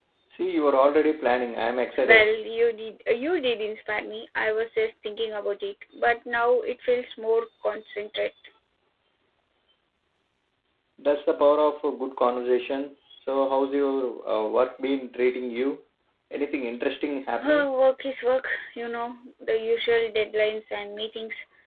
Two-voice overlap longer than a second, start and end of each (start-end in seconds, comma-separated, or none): none